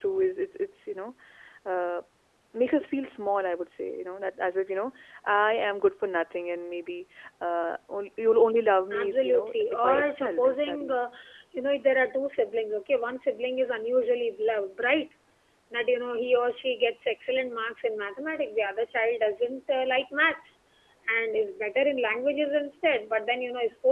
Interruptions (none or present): present